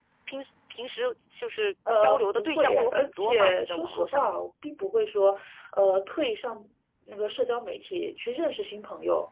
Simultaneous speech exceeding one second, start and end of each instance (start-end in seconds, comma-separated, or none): 2.0-4.2